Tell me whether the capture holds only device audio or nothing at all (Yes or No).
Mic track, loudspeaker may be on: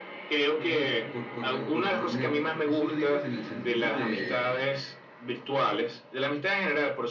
No